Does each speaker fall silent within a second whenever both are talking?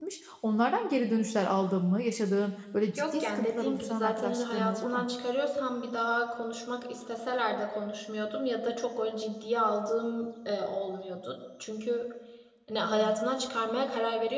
No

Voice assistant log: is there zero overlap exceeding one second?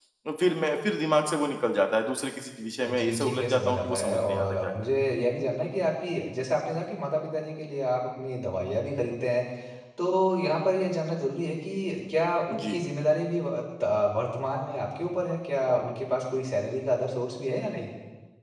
No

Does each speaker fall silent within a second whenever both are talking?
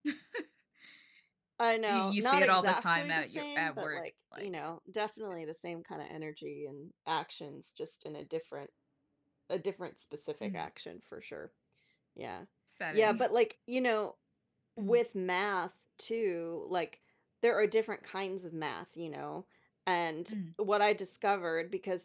No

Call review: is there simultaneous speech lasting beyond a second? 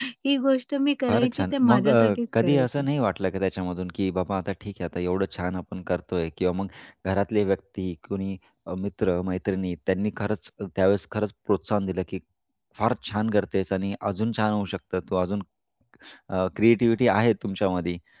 Yes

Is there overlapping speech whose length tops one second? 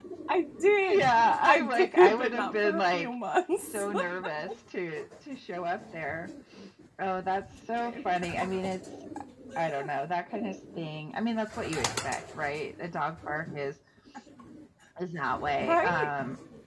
Yes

